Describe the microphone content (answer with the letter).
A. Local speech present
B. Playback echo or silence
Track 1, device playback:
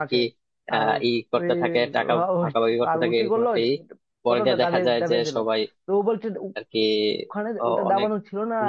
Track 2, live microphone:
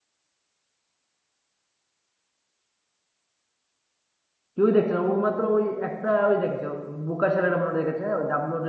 A